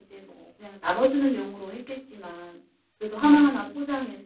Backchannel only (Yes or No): Yes